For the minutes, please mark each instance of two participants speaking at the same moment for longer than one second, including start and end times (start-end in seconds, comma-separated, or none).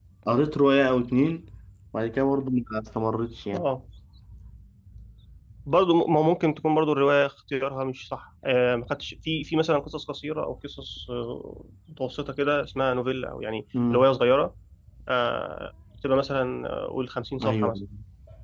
none